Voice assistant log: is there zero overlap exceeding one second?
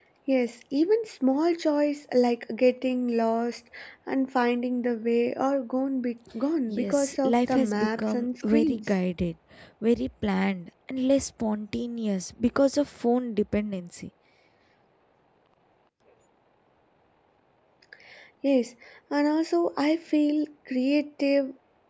No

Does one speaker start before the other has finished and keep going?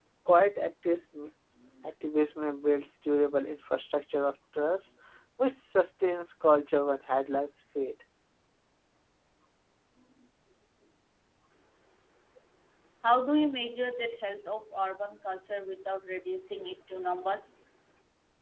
No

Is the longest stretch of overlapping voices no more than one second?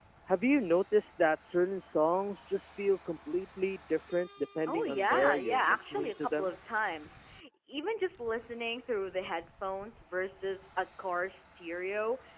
No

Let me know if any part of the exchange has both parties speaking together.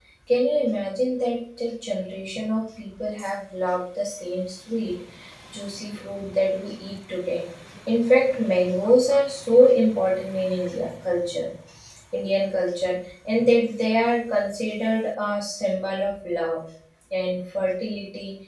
No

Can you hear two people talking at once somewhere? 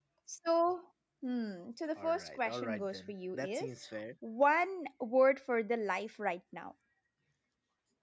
Yes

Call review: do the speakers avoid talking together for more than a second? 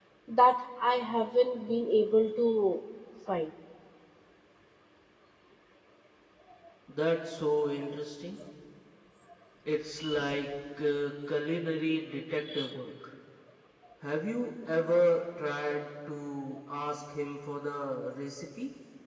Yes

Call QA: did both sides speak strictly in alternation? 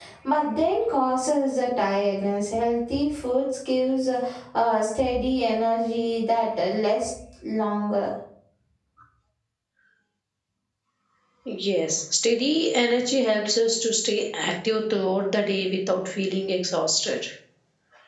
Yes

